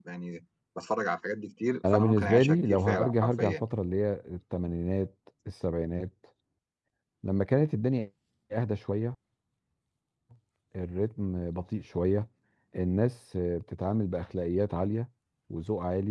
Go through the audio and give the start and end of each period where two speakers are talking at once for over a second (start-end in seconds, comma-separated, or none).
1.9-3.6